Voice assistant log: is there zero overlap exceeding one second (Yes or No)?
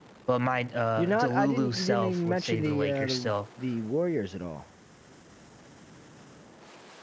No